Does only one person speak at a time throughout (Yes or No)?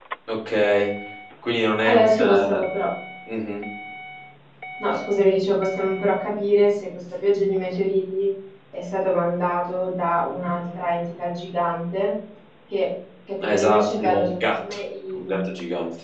No